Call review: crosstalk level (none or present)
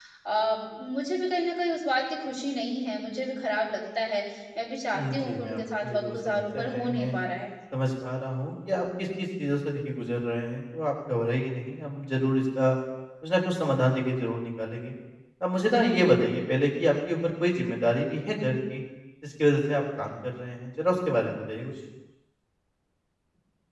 present